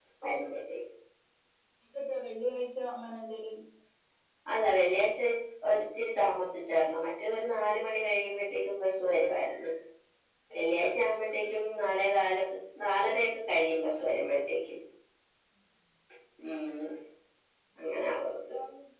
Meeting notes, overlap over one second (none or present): none